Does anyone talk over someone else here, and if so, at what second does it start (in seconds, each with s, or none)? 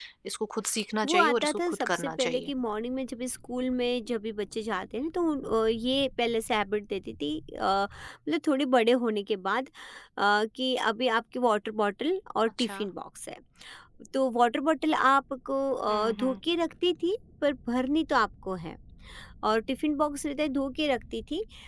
1.0 s